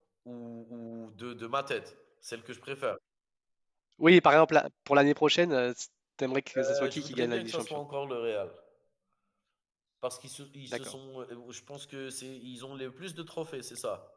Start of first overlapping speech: 6.5 s

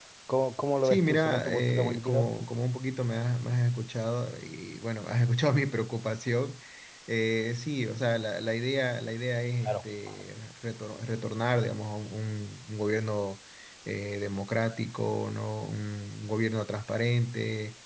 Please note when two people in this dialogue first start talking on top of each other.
0.8 s

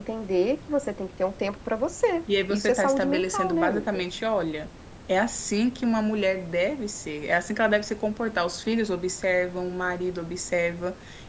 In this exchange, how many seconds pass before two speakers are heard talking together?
2.3 s

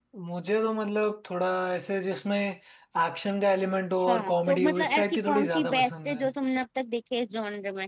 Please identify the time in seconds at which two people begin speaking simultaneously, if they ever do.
4.0 s

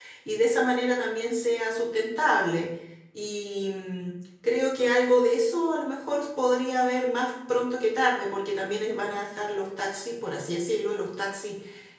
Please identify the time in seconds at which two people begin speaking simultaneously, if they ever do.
none

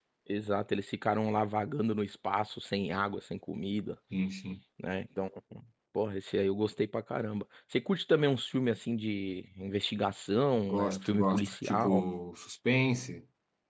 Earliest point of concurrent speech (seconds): 10.6 s

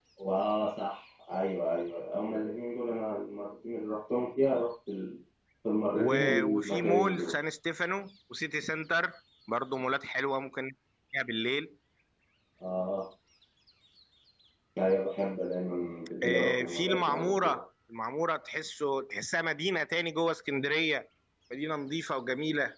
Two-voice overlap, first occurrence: 6.0 s

